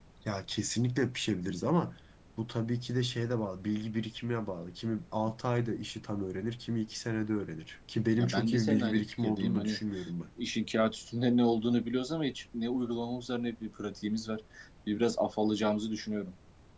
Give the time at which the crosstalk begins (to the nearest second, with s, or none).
8 s